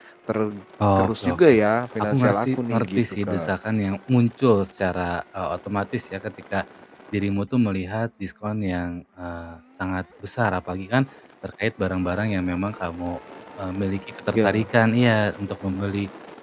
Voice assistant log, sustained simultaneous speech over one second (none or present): present